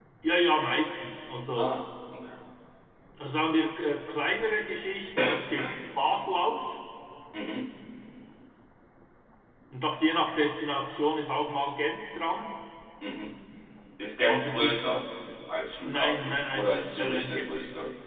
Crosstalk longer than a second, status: present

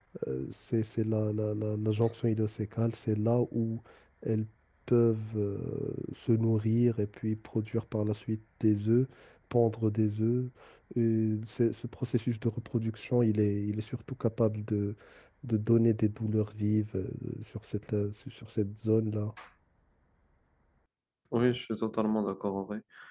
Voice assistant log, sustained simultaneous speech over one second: none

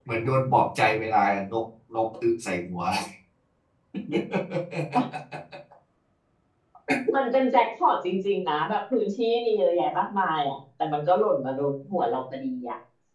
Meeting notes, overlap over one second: none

